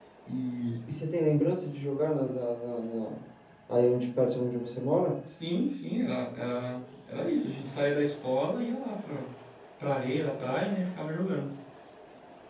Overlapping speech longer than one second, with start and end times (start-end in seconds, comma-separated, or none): none